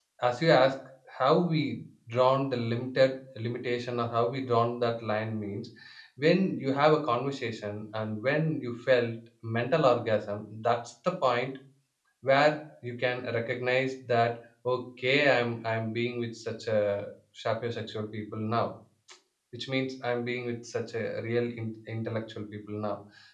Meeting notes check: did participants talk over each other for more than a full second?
No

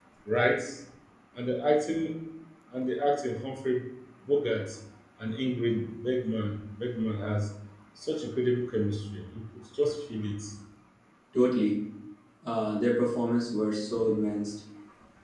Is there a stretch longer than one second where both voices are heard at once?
No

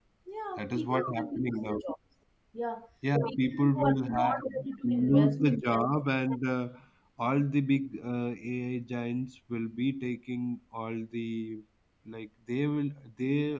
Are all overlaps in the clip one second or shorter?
No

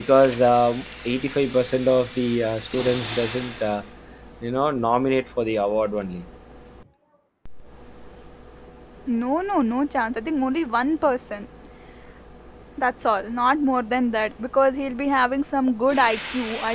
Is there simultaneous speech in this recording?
No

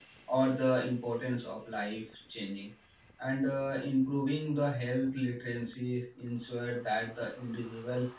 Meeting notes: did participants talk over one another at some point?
No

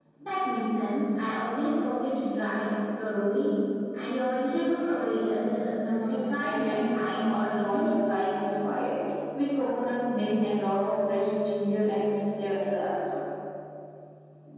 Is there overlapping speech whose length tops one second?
Yes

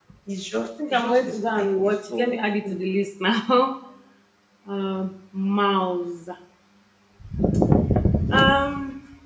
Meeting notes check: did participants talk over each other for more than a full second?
Yes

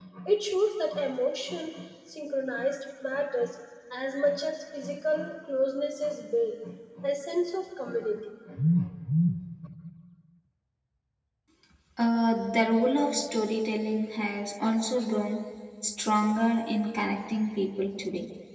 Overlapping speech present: No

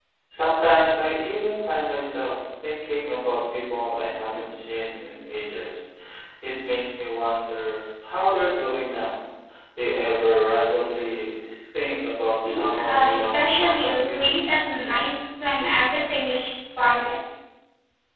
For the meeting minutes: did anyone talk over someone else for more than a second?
Yes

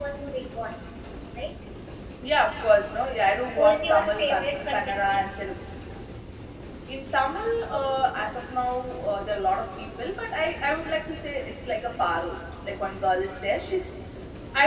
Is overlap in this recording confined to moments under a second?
No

